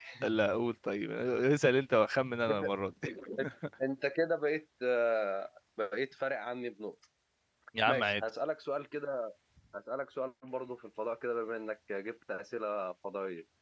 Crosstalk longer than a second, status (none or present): none